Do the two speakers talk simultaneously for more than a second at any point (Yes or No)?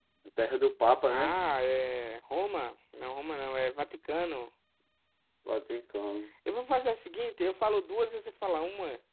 No